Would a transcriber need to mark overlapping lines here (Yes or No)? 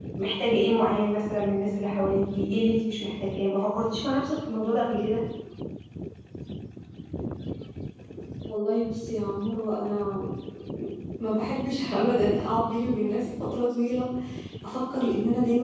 No